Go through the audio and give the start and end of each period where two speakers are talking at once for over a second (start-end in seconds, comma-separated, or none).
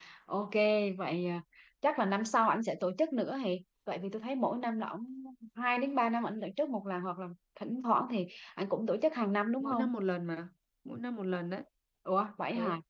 none